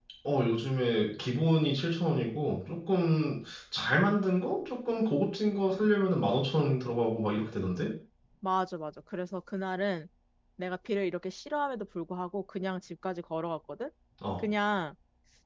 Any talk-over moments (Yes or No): No